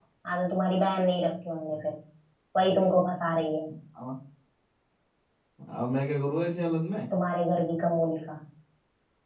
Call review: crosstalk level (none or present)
none